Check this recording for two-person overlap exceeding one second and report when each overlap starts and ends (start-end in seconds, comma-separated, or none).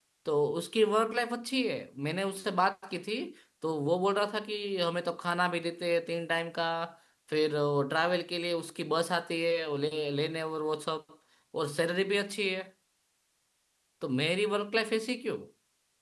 none